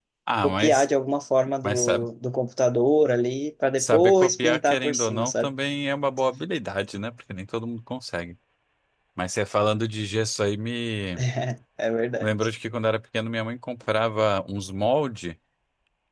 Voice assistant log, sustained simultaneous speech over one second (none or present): present